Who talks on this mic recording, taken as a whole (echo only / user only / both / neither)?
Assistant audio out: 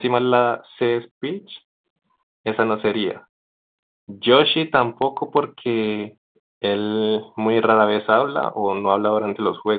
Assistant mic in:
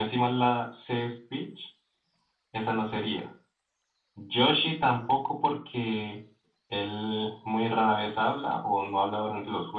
echo only